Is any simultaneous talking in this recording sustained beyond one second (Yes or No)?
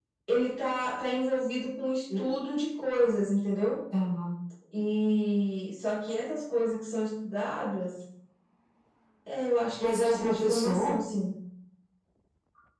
Yes